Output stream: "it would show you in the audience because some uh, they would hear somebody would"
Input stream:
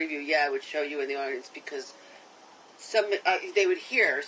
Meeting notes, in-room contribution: none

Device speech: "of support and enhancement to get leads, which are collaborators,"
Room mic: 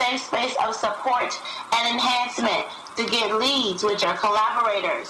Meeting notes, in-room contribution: none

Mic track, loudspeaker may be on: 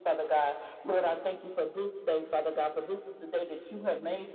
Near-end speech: none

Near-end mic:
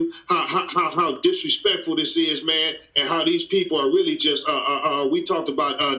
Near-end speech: none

